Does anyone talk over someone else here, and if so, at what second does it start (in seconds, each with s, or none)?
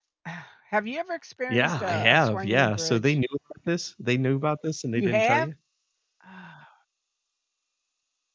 1.5 s